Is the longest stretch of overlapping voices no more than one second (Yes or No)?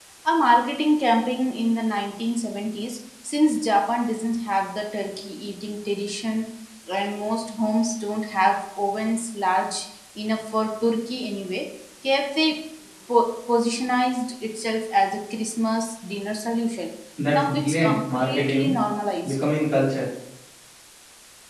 No